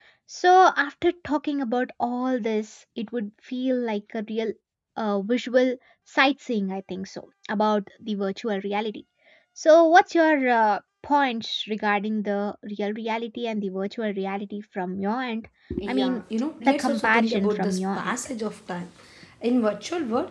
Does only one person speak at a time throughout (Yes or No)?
No